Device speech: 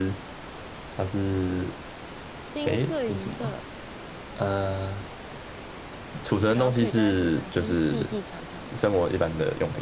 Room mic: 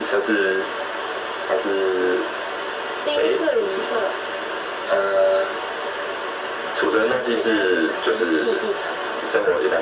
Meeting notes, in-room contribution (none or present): none